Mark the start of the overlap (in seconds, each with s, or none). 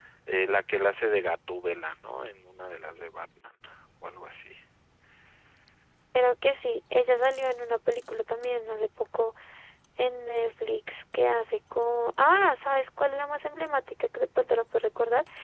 none